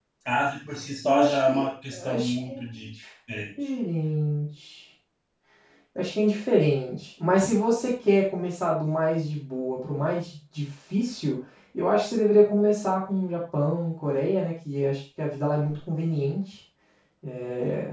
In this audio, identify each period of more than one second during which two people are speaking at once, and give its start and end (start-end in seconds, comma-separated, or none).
1.0-2.6